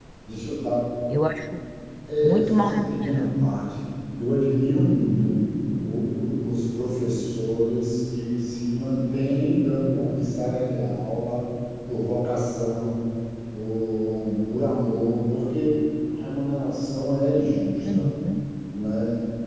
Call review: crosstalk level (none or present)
present